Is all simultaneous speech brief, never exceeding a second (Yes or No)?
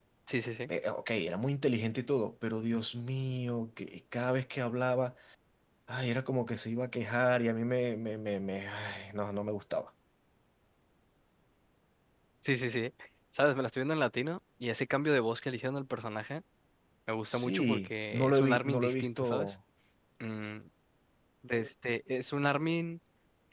No